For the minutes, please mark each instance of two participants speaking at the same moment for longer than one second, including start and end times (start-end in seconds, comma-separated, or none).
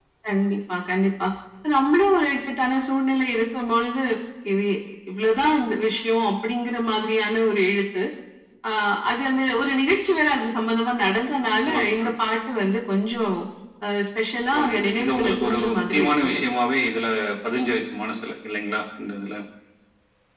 14.6-16.4